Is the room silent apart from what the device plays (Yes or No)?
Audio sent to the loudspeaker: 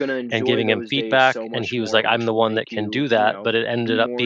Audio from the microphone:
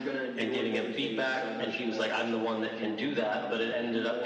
Yes